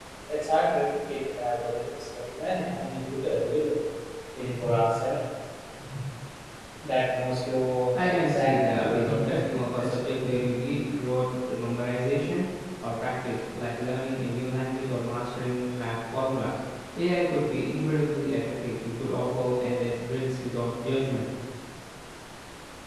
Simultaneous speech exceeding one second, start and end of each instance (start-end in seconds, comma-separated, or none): 8.0-9.9